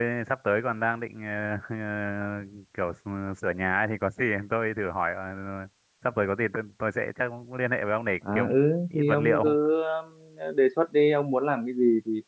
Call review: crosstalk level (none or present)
present